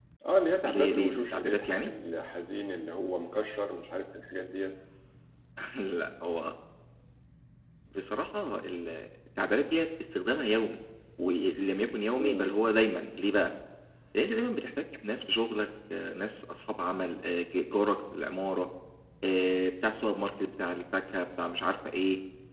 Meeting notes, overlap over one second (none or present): present